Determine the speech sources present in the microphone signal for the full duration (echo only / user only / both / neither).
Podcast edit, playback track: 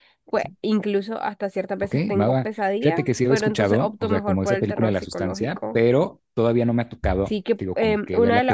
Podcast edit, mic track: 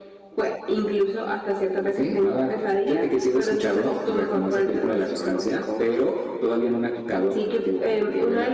echo only